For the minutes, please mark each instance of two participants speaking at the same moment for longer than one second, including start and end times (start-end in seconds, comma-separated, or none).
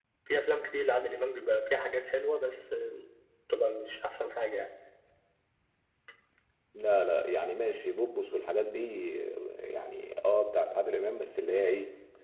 none